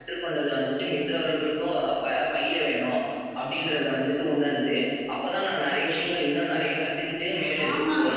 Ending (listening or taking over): taking over